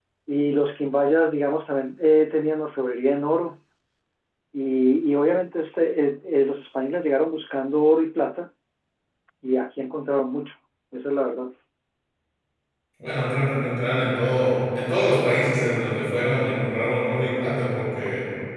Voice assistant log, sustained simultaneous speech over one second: none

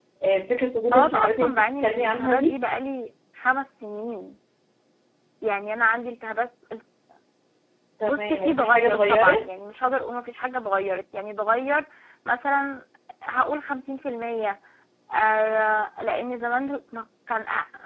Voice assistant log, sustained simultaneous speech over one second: present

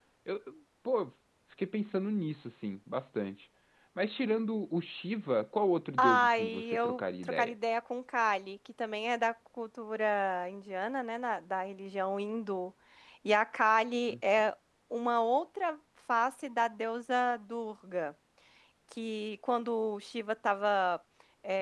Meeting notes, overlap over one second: present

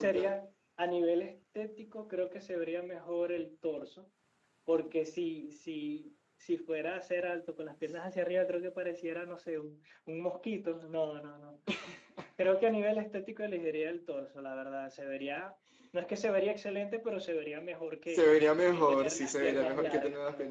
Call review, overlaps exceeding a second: present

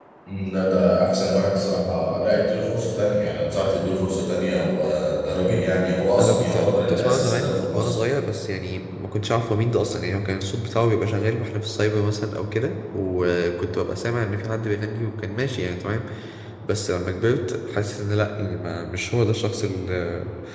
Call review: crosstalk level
present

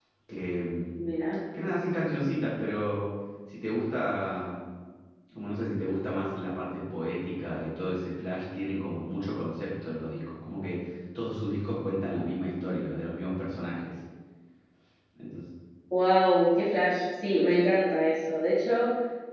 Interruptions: none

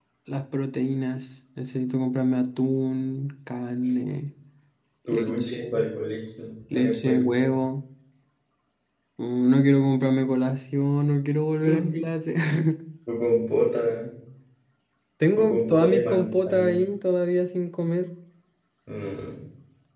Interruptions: present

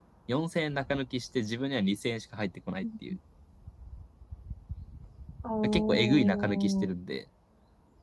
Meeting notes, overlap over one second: present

